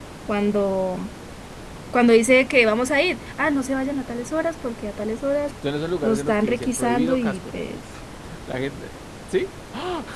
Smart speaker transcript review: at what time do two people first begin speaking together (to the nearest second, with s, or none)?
6 s